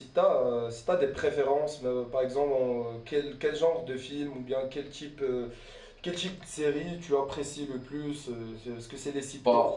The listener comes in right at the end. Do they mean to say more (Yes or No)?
No